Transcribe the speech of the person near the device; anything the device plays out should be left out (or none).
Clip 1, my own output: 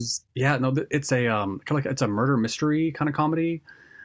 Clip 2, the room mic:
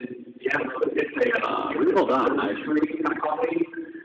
uh, really well done. I